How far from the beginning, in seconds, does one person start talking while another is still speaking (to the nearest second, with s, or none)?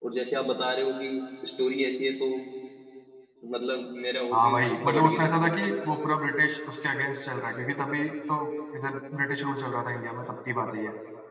4 s